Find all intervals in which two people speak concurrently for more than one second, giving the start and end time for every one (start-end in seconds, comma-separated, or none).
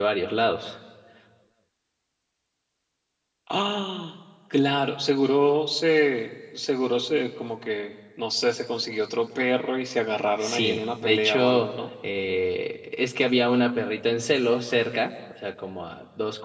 10.4-11.7